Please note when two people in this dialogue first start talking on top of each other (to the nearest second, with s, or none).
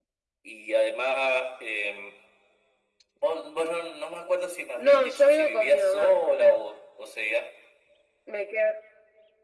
5 s